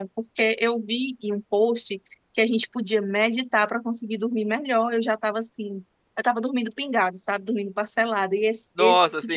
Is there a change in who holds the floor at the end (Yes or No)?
Yes